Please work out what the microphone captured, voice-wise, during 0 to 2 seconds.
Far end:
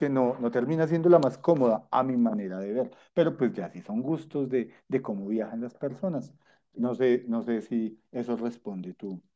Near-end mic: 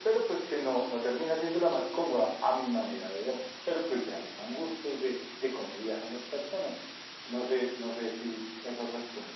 echo only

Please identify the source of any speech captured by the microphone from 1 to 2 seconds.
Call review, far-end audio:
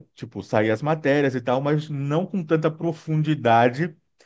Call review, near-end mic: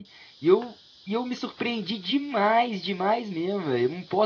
user only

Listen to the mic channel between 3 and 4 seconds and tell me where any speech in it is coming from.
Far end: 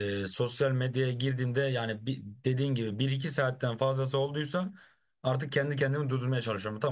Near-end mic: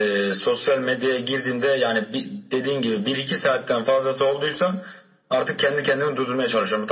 echo only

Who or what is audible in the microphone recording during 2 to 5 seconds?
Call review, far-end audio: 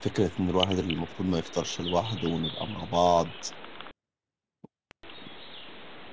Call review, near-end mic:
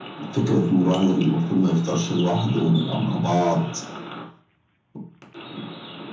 echo only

